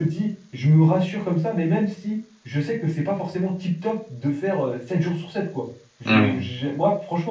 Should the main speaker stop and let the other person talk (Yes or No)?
No